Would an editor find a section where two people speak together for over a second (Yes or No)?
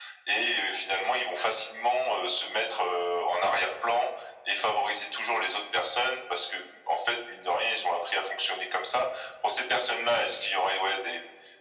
No